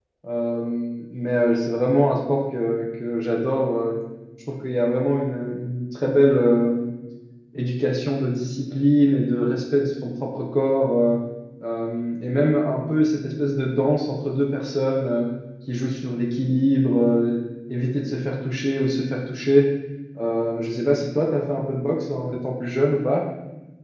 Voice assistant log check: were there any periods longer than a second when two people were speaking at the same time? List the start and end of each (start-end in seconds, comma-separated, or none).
none